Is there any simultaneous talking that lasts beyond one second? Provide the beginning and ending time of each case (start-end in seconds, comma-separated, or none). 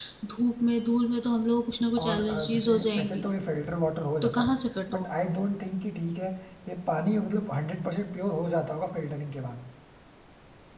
2.0-3.2